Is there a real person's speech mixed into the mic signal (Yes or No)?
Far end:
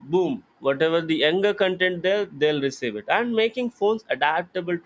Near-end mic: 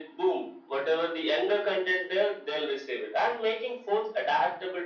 No